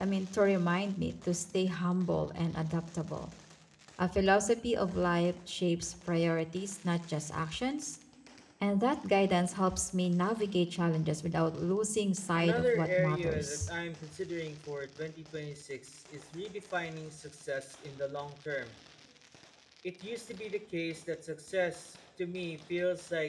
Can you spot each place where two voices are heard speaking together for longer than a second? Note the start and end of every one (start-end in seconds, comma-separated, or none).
12.4-13.7